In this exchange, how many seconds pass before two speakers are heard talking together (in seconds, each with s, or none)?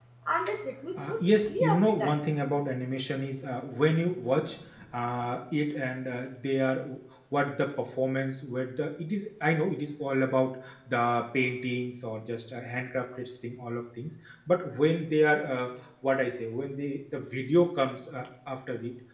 1.0 s